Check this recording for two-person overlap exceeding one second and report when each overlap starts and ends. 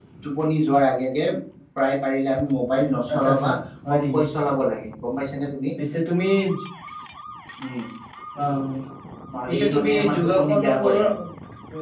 9.5-10.9

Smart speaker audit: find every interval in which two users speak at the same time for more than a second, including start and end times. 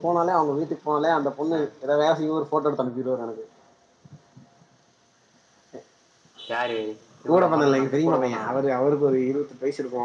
7.3-8.6

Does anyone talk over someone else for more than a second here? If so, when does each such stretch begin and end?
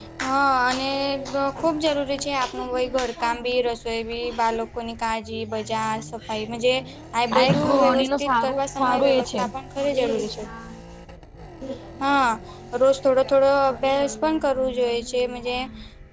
7.3-9.5

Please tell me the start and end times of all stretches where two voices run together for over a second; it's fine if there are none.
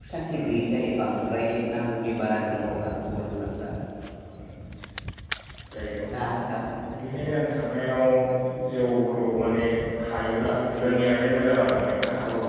none

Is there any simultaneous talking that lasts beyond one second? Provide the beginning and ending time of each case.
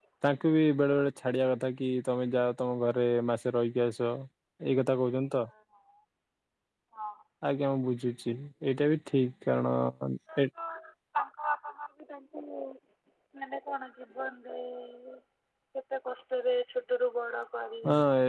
none

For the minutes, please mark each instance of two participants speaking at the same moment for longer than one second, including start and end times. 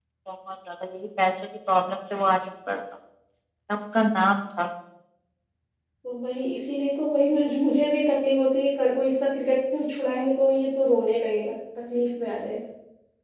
none

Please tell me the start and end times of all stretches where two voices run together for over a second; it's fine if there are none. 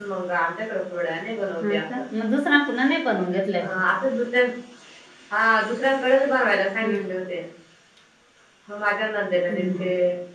none

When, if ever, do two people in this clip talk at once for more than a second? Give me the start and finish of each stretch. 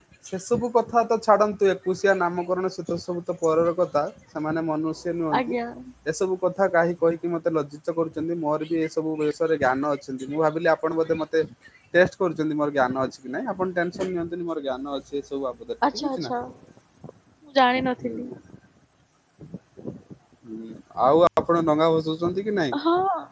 none

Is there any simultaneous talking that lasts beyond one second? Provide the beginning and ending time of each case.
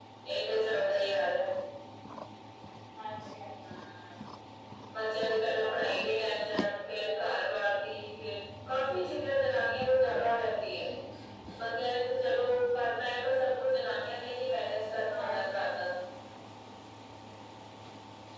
5.6-7.2

